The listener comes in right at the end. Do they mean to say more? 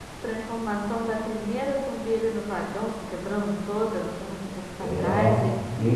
Yes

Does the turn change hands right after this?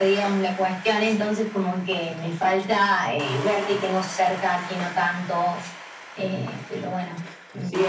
Yes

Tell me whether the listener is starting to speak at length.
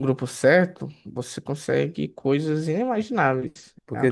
Yes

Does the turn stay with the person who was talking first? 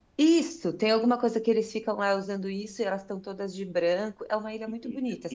No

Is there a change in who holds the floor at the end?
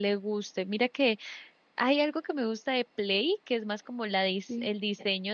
No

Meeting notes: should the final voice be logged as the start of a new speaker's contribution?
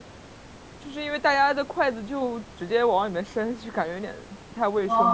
Yes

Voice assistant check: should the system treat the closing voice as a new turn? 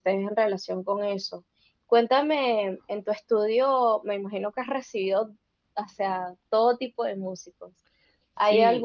No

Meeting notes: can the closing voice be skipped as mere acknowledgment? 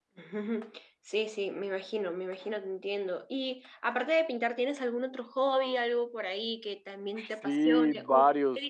No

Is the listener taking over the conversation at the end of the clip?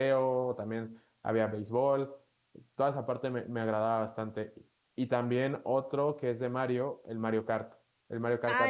Yes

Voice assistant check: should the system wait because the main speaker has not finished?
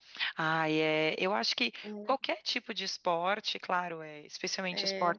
Yes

